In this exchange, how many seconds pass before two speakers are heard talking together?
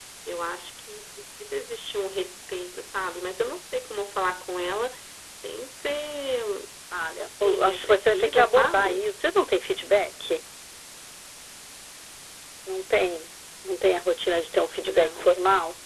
7 s

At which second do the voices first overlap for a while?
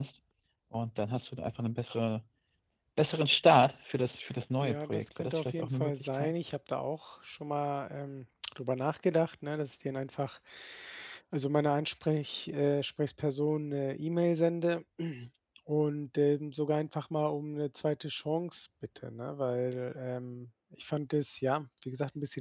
5 s

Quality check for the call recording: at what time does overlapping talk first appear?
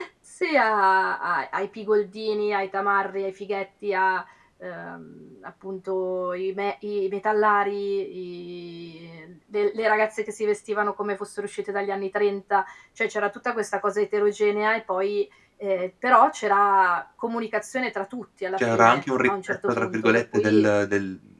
19 s

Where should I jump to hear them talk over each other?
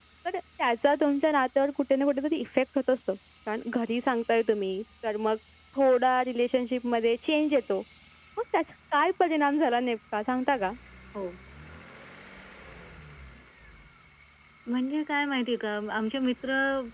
none

